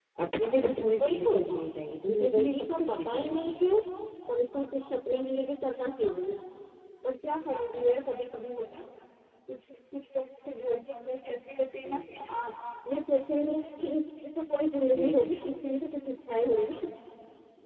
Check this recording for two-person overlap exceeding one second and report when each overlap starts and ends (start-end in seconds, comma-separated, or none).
2.3-3.6